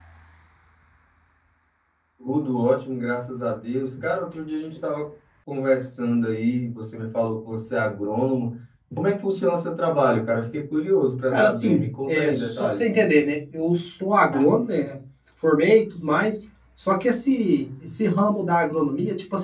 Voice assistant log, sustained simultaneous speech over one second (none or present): present